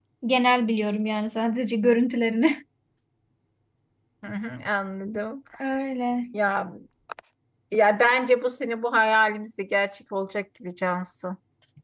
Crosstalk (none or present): none